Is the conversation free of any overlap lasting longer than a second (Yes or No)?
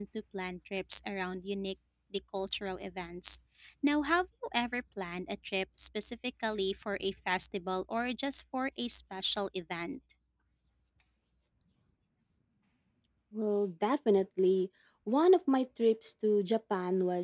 Yes